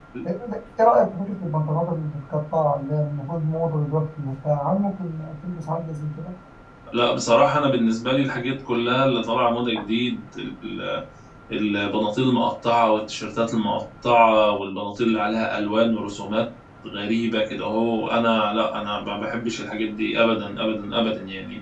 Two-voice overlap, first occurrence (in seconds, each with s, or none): none